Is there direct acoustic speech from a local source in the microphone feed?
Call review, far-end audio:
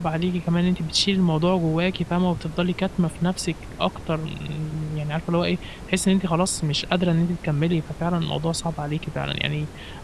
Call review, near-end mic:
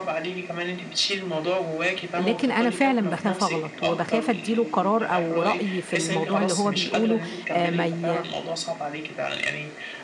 Yes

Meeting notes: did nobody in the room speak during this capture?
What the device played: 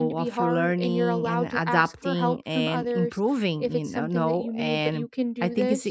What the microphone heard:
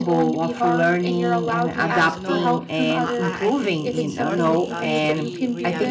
No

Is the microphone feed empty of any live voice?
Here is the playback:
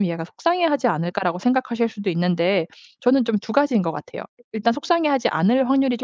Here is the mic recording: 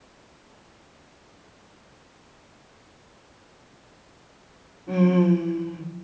No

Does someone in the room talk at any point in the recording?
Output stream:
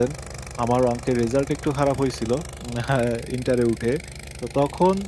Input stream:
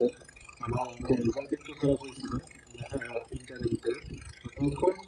No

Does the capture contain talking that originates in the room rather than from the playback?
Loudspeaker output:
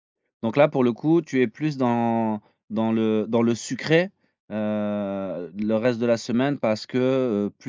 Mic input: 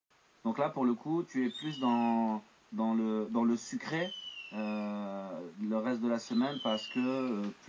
No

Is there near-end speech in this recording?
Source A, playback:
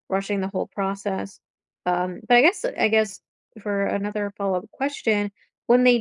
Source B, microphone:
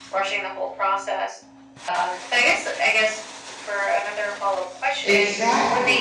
Yes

